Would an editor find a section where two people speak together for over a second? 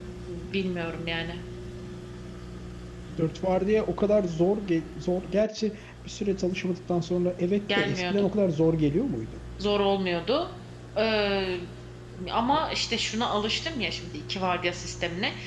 No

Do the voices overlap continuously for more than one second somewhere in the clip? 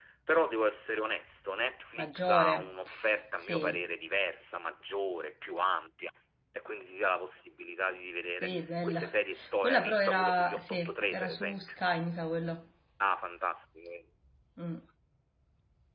Yes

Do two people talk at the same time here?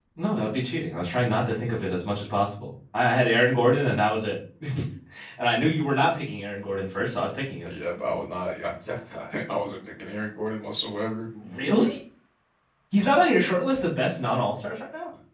No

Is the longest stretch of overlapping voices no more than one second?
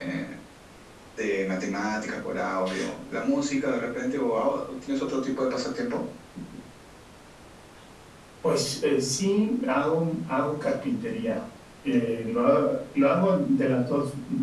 Yes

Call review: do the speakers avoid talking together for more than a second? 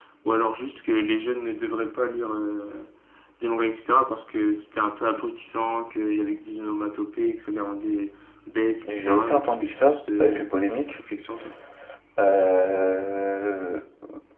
No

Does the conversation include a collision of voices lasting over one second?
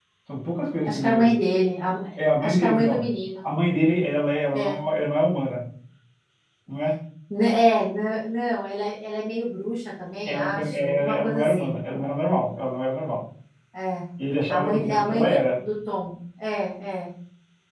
Yes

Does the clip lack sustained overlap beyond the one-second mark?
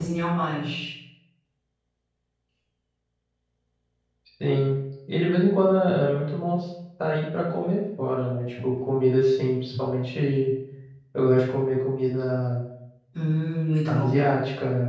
Yes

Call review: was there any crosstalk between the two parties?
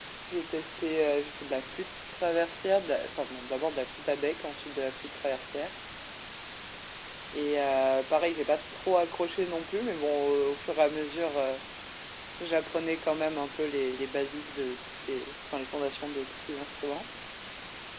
No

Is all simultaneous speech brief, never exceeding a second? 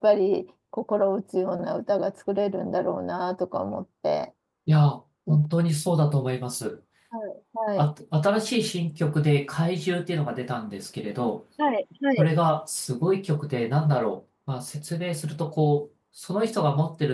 Yes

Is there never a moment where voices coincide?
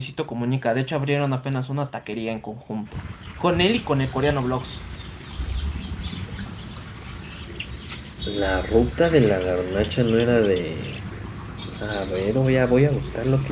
Yes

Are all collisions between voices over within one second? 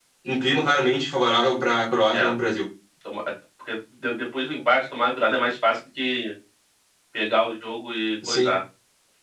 Yes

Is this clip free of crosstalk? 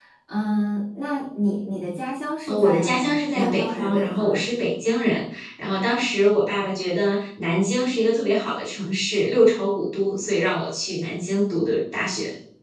No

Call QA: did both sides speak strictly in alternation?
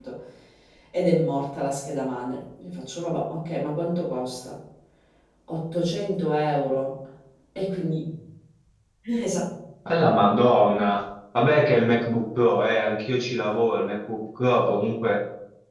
Yes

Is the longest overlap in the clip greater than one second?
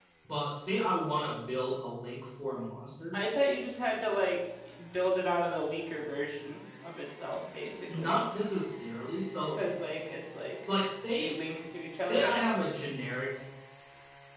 No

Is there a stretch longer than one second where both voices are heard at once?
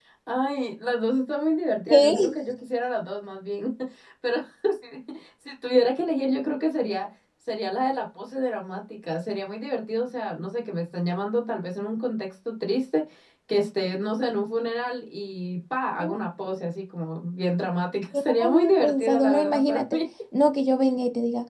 Yes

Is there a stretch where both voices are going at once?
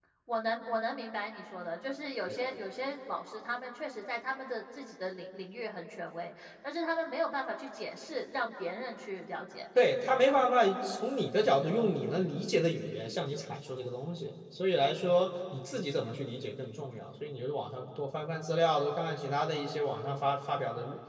No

